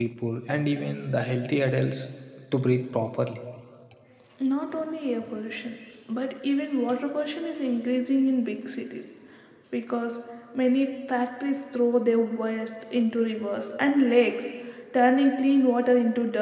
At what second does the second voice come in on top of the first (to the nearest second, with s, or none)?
none